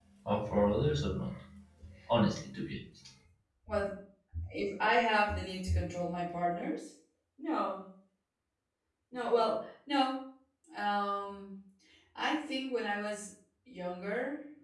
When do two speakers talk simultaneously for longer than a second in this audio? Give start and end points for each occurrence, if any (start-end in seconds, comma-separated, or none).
none